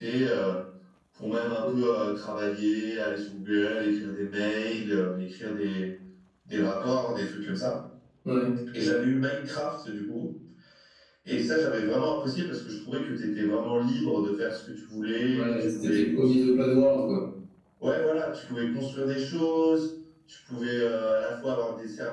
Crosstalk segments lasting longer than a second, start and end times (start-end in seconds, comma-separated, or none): 15.3-16.5